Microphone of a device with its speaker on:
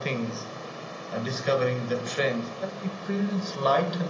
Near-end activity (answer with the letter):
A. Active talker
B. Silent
B